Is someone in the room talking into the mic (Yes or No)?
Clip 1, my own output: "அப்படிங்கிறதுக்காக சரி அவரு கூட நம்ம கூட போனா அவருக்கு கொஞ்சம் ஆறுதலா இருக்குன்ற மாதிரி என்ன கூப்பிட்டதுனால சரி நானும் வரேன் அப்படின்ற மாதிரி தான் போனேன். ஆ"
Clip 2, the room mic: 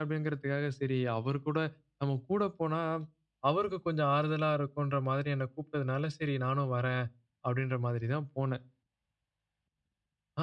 No